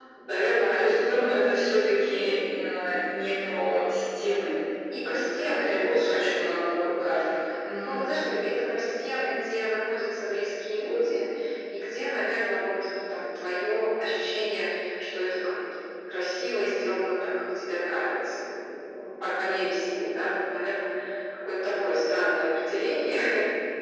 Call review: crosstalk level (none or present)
present